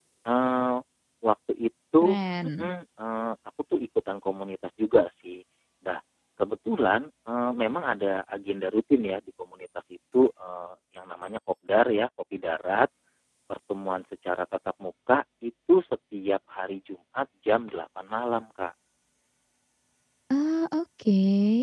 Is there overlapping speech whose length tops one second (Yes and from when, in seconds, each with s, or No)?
No